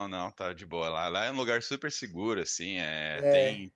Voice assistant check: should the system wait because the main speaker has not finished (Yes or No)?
Yes